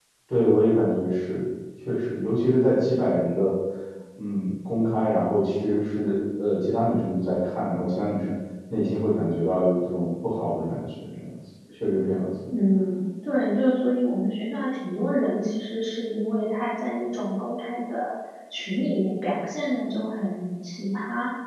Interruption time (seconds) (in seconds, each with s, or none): none